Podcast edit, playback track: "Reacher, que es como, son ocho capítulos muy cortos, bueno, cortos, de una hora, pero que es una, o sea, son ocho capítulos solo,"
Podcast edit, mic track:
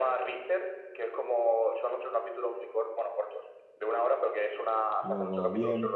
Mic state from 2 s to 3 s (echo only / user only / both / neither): echo only